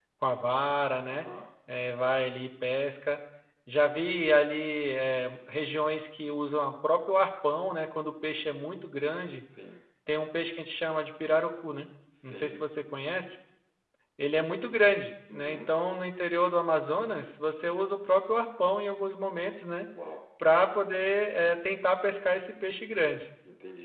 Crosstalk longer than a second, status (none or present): none